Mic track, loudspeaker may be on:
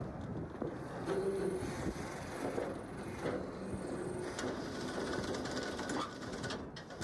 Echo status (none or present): none